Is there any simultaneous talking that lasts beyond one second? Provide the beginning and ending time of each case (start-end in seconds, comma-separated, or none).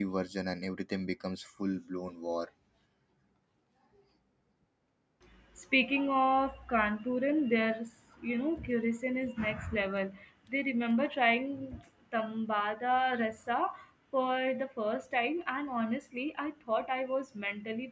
none